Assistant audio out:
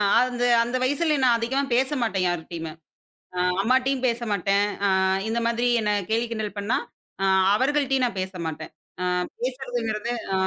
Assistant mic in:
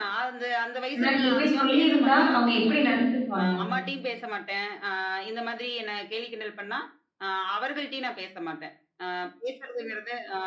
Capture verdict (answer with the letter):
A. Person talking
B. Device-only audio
A